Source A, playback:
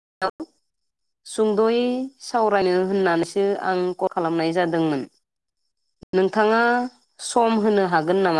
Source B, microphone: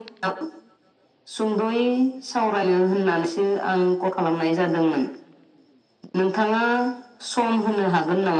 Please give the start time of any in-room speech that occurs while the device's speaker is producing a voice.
none

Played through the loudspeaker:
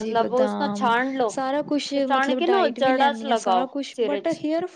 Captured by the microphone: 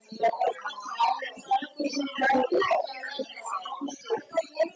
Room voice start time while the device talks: none

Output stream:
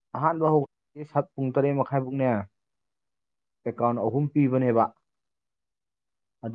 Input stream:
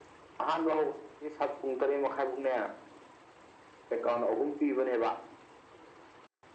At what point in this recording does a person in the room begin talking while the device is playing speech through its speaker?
none

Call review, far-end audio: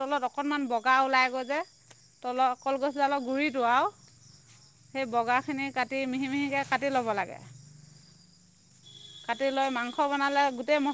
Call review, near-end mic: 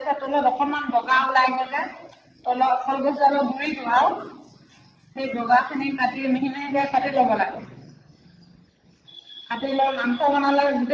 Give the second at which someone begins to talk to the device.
none

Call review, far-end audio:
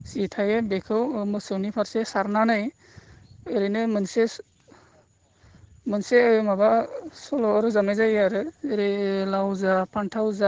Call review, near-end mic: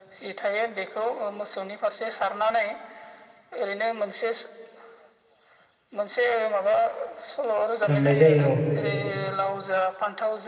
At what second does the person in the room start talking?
7.9 s

